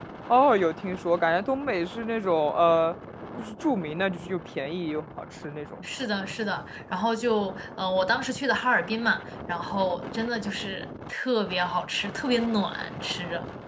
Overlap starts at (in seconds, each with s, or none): none